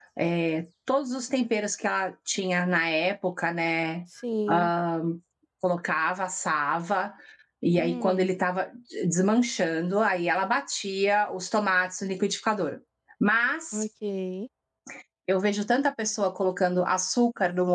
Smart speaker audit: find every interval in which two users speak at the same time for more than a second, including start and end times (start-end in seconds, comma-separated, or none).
none